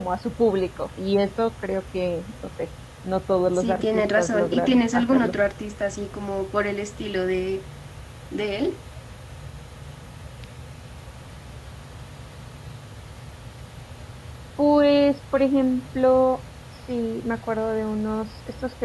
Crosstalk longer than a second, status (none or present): present